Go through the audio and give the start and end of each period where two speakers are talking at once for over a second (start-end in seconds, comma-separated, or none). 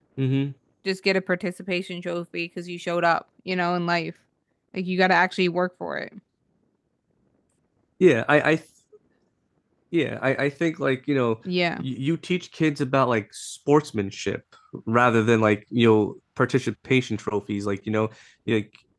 none